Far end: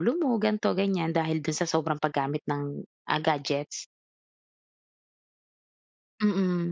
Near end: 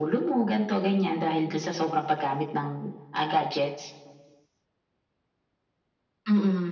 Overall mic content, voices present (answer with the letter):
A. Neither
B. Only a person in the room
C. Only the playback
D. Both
C